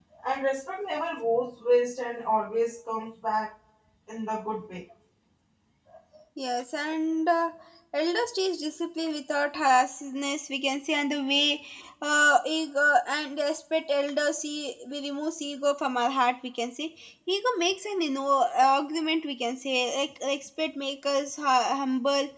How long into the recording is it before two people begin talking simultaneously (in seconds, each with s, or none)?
none